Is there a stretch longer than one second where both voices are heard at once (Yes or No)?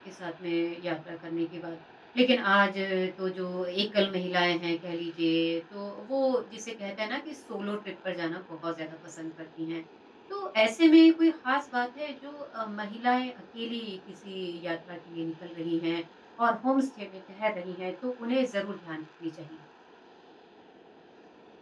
No